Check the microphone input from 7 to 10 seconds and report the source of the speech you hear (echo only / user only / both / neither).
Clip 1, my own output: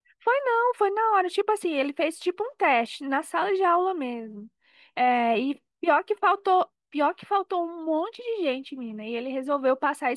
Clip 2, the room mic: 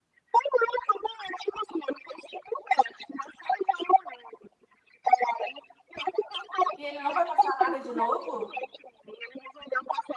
both